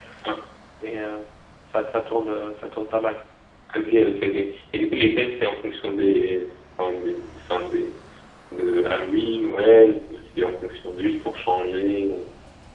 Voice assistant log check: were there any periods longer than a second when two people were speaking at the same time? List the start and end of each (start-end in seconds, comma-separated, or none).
none